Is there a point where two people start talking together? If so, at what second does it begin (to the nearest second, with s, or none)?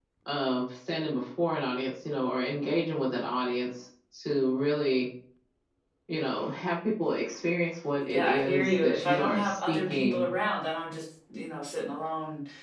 8 s